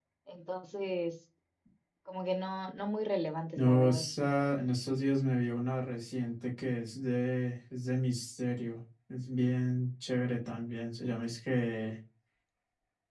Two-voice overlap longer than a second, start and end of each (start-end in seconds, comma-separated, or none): none